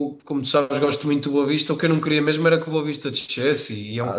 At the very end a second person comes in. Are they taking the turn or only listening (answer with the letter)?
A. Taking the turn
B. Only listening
A